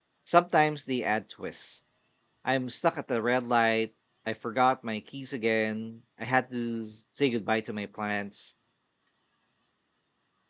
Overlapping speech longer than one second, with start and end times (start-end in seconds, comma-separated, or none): none